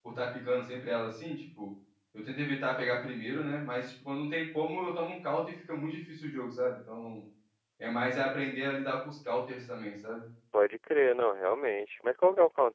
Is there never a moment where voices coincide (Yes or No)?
Yes